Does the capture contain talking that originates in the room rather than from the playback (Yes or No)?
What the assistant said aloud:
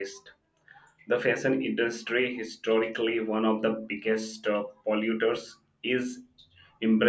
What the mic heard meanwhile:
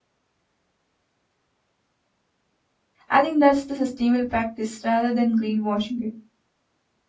Yes